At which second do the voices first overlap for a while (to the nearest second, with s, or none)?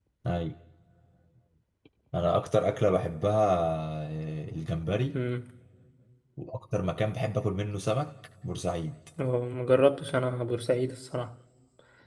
none